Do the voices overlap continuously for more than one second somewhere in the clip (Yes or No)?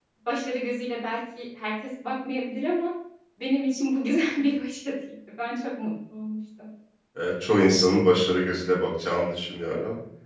No